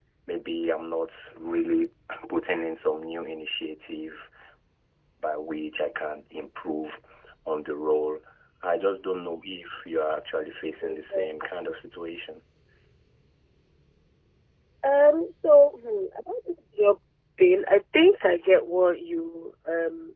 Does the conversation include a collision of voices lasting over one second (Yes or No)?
No